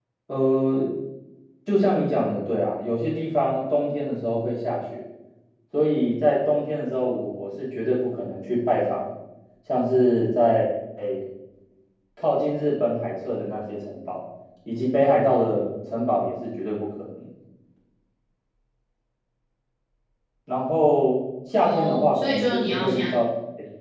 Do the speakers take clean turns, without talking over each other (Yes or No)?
No